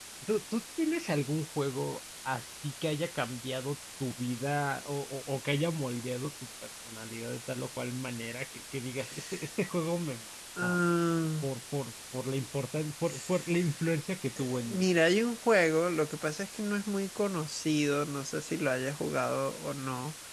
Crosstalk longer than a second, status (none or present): none